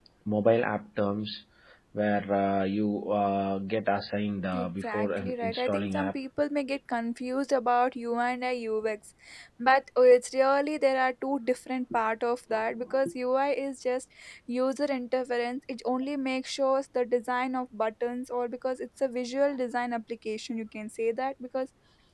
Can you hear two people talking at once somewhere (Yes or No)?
Yes